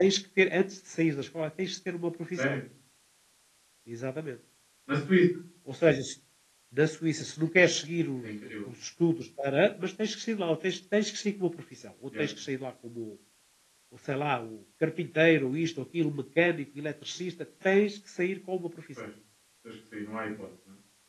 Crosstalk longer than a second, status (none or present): none